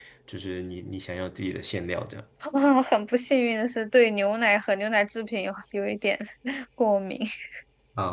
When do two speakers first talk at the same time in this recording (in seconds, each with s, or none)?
none